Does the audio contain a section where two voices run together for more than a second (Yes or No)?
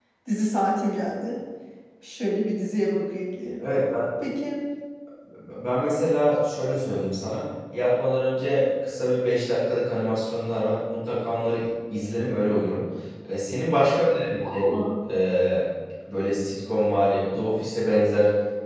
No